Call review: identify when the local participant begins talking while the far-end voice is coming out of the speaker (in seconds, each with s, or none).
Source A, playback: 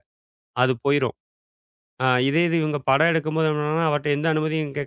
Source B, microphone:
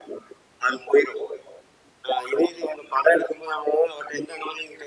none